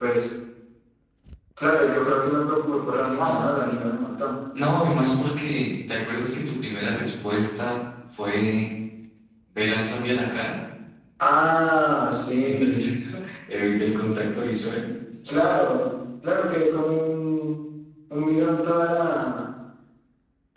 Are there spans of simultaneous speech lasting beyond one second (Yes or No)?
No